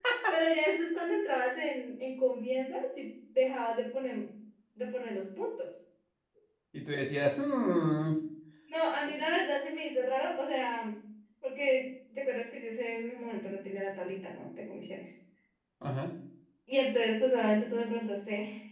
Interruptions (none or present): none